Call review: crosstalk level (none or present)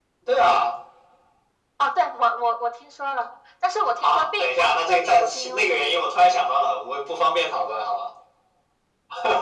present